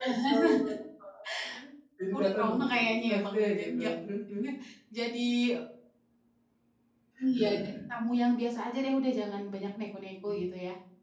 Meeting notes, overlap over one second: present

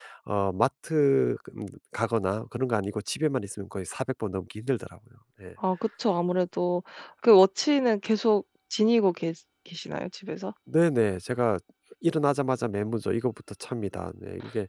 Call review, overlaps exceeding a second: none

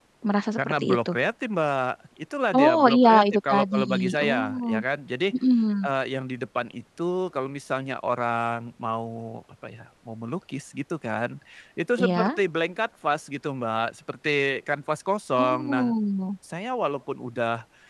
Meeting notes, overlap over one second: present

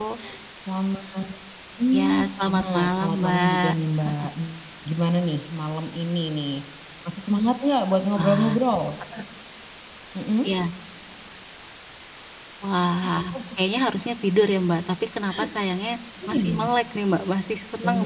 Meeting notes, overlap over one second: present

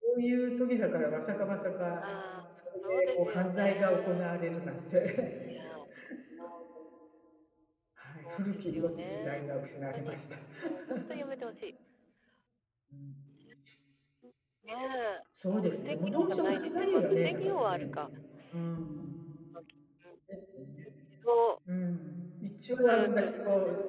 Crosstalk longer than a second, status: present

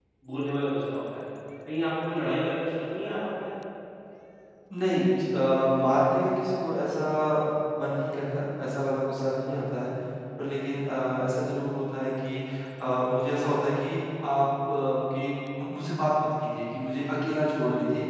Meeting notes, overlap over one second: none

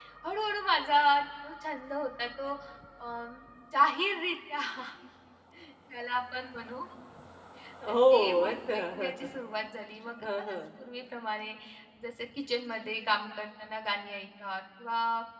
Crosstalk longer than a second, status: present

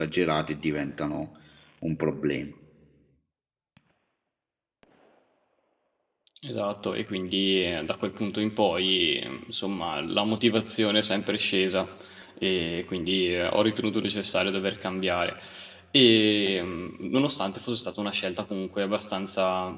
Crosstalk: none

